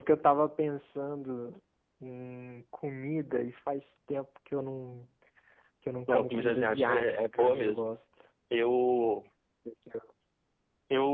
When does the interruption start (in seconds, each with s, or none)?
6.1 s